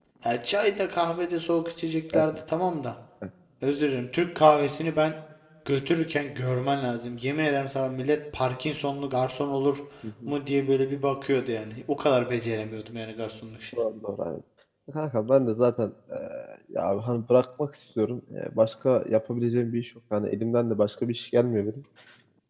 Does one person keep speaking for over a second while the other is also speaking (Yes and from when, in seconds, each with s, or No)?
No